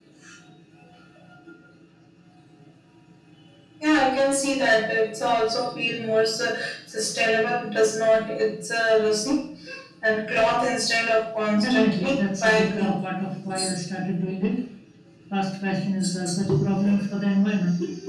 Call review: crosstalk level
present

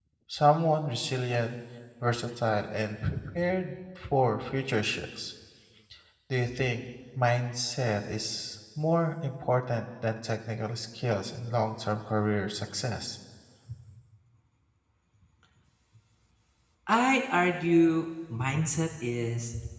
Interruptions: none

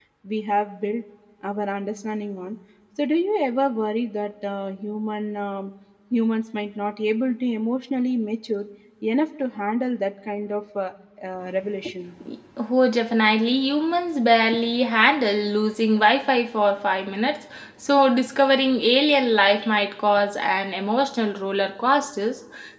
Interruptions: none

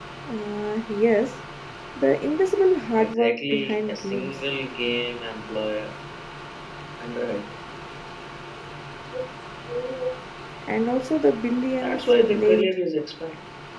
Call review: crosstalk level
present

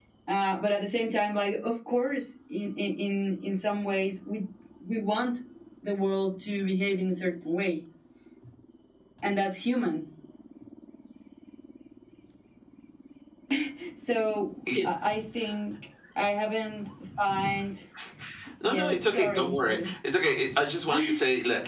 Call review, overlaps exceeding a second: present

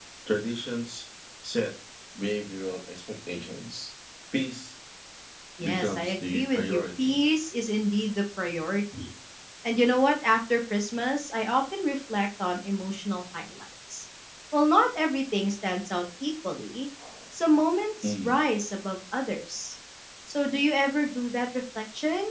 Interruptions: present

